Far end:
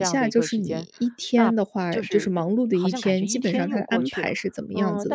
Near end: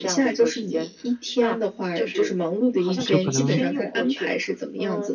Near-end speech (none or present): present